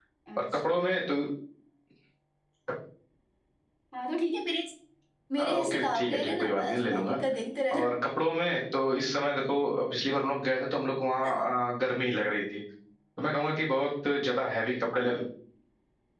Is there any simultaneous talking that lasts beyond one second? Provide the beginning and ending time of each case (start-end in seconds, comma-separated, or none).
5.4-7.2